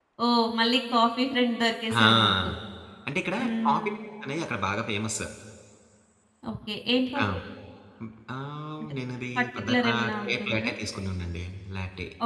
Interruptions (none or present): present